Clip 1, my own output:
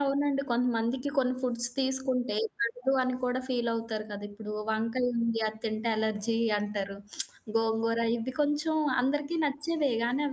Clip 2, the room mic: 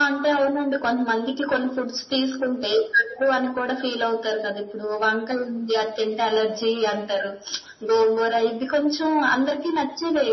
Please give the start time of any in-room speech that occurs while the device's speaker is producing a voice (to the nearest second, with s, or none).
none